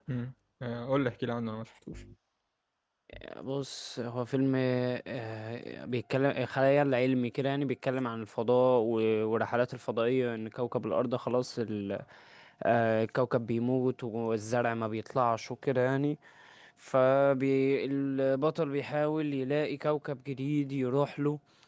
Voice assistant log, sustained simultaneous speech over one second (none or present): none